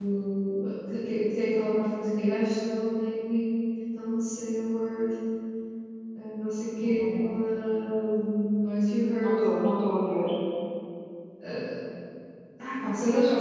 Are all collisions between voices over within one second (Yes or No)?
Yes